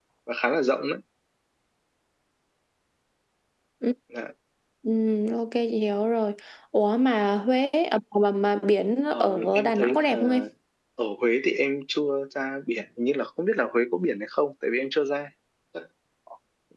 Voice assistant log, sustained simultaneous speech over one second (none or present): present